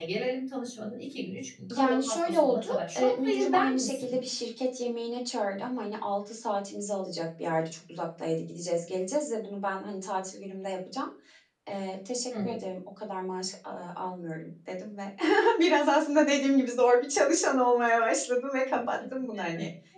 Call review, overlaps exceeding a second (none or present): present